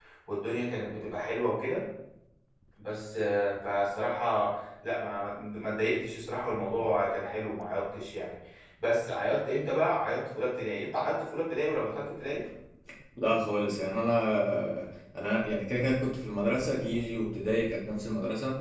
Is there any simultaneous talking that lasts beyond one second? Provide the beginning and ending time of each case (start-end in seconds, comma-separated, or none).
none